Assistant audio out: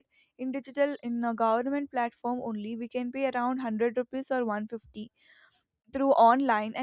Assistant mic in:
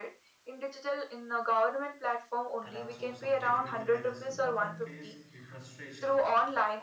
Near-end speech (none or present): present